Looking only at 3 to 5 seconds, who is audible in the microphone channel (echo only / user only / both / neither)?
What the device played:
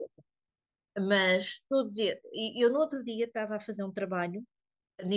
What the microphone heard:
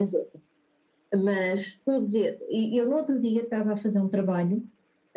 echo only